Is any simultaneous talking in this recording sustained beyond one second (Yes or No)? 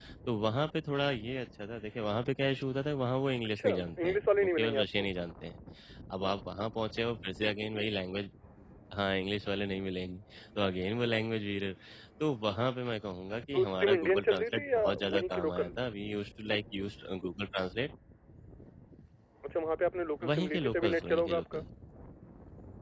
Yes